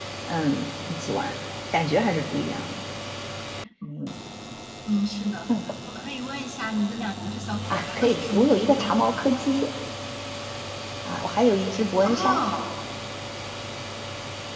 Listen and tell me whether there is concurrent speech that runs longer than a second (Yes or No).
Yes